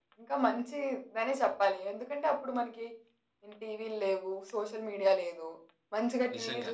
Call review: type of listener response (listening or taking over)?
listening